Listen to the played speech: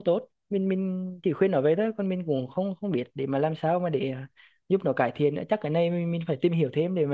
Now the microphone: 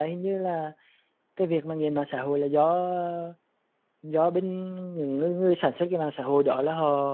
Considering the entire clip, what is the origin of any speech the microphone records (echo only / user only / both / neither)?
user only